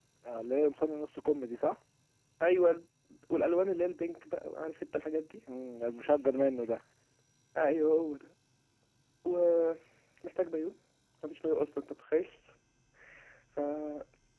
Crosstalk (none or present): none